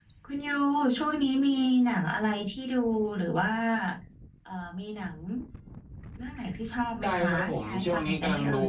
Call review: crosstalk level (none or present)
present